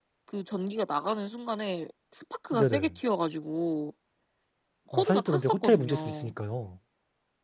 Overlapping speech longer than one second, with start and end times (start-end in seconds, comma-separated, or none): 4.9-6.3